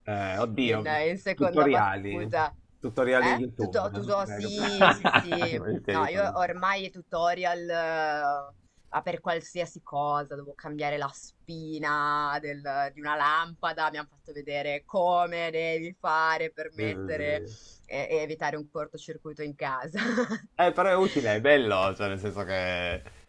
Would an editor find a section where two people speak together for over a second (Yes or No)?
Yes